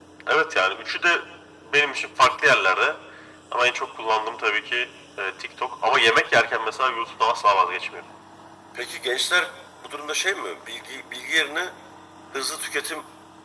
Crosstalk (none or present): none